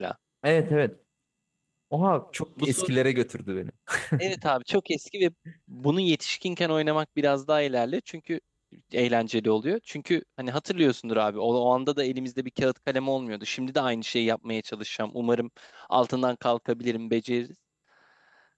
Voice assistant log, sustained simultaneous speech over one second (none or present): none